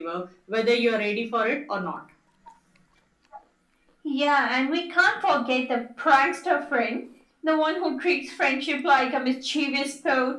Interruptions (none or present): none